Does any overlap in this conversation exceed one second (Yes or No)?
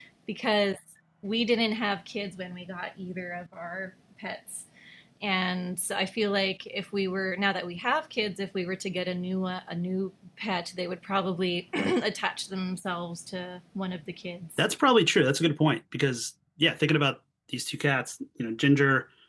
No